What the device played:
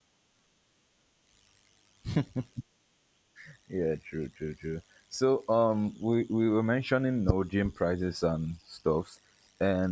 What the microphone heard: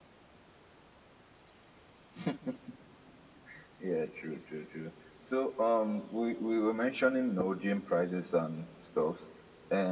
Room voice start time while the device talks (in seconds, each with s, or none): none